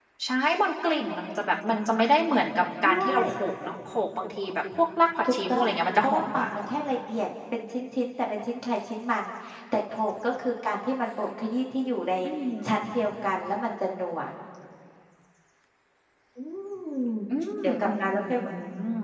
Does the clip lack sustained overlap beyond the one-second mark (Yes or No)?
No